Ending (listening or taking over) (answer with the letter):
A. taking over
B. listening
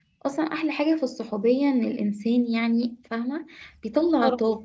B